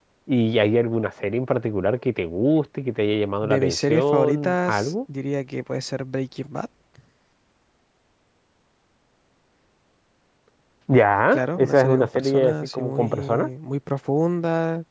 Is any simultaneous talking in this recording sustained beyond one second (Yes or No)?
Yes